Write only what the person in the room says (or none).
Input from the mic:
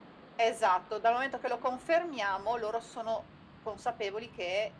none